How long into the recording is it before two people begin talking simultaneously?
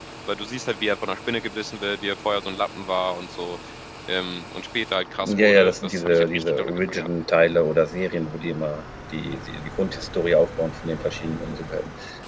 5 s

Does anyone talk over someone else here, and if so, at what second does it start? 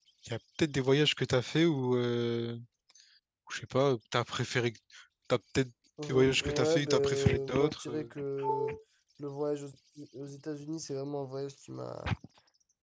6 s

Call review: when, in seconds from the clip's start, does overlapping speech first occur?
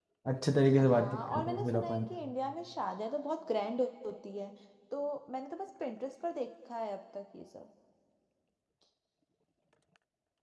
1 s

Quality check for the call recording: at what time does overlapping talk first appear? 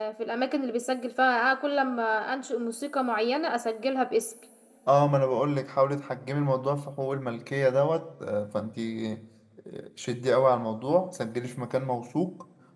none

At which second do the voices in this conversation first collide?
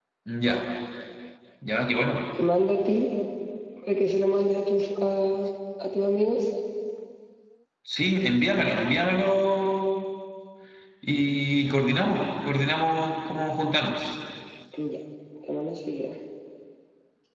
none

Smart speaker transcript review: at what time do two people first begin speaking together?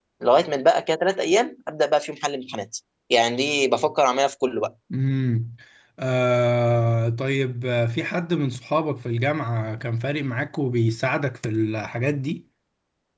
none

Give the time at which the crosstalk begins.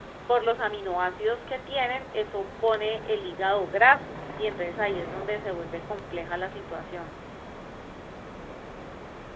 none

